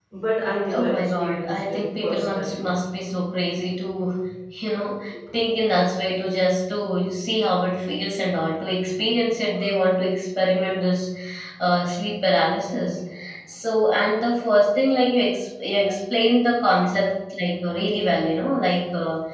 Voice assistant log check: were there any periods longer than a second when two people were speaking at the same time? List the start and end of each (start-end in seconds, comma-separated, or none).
0.7-2.6